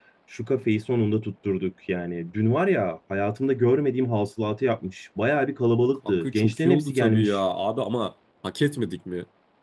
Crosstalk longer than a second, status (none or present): present